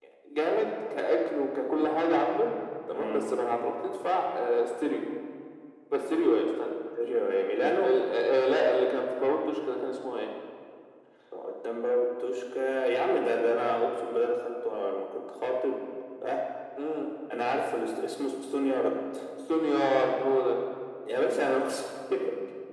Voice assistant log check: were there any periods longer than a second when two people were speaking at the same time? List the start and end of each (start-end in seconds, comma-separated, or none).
none